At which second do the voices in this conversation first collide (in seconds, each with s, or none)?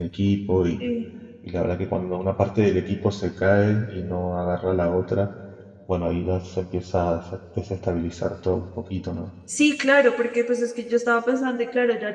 none